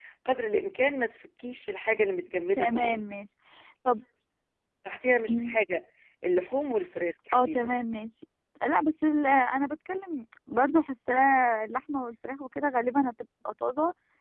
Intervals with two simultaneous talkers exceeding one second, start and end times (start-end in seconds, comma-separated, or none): none